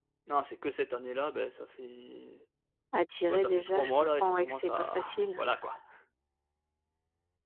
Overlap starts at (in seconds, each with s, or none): 3.3 s